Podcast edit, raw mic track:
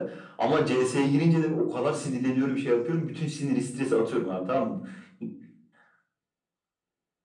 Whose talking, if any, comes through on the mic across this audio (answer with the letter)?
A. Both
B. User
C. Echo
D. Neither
C